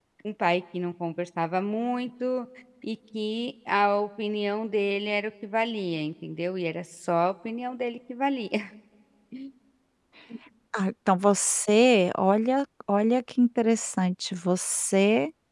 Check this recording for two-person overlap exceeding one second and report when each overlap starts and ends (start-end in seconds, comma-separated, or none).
none